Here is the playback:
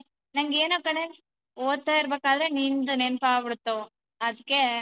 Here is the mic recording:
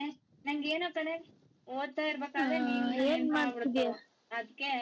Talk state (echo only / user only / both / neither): both